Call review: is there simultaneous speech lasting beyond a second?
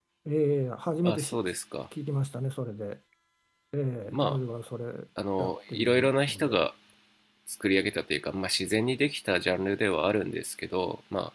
Yes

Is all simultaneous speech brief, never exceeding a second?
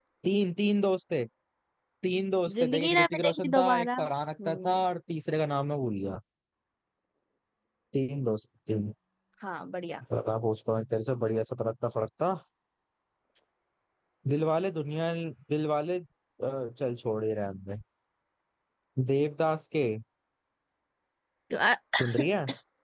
No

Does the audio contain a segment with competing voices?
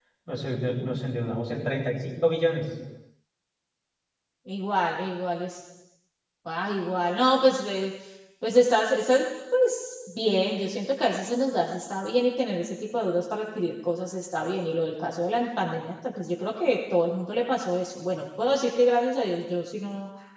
No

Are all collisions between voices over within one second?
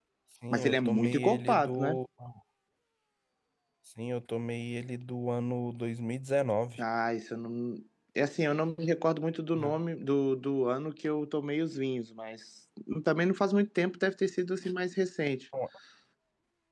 No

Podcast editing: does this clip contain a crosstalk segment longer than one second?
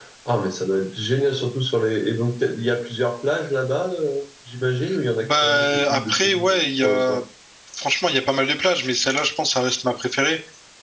Yes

